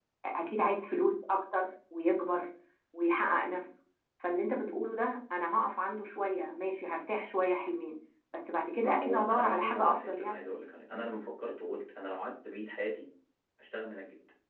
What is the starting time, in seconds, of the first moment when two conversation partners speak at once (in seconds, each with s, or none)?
8.8 s